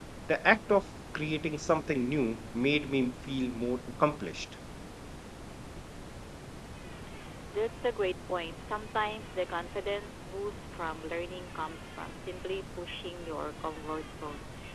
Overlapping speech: No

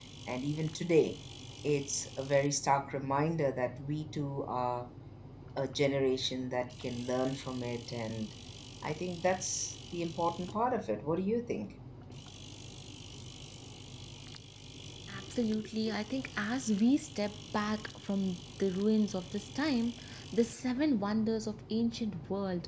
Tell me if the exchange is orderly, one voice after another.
Yes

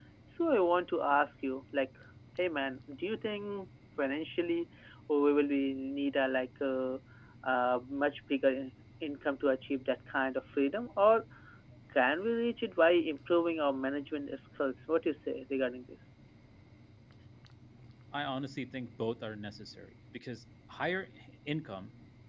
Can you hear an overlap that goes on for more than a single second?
No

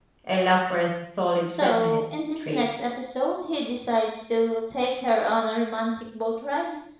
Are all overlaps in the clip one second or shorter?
No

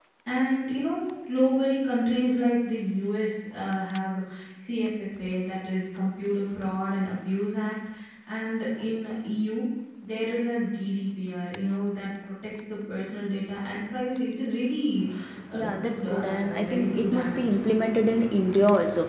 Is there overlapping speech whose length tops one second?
Yes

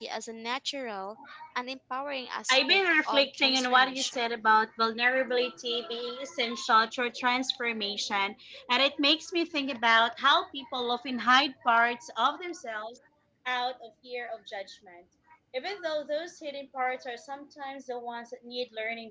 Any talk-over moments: Yes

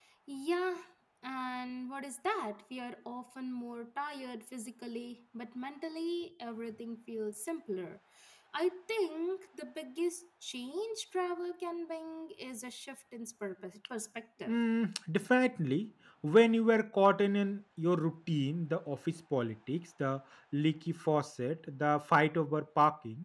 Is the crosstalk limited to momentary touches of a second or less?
Yes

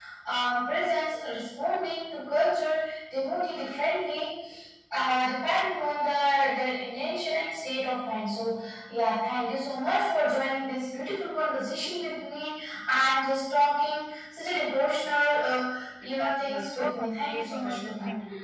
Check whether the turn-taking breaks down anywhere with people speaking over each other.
Yes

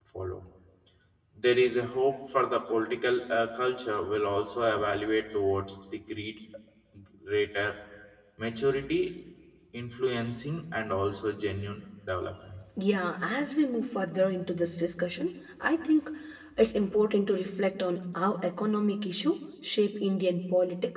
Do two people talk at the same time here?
No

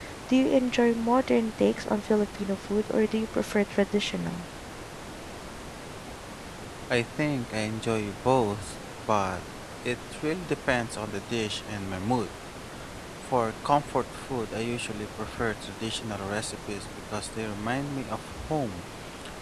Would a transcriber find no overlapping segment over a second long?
Yes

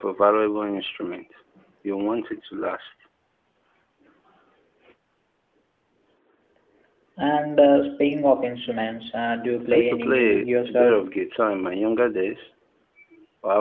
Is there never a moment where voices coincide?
No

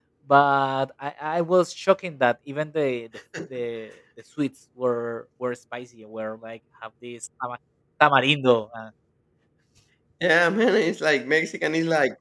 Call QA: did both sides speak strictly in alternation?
Yes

